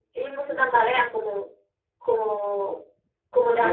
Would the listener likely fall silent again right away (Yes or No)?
No